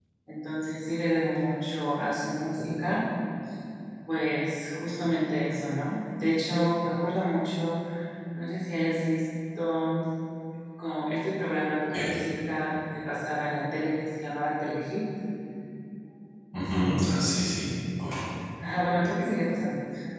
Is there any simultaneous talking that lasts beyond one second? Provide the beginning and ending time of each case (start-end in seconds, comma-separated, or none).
none